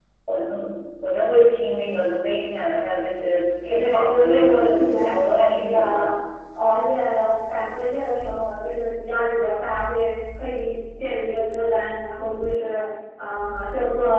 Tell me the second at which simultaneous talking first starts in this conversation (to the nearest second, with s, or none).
4 s